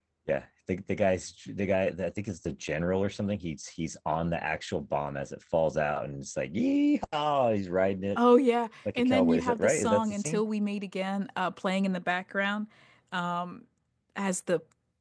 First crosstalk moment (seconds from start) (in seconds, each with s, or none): 9.0 s